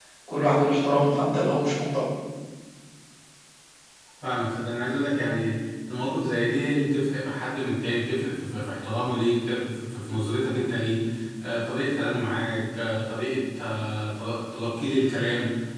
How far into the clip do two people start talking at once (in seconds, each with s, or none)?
none